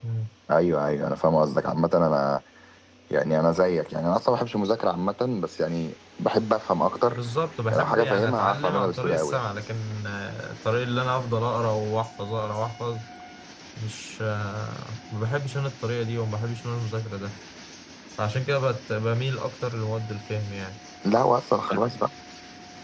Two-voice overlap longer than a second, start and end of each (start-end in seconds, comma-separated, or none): 7.7-9.4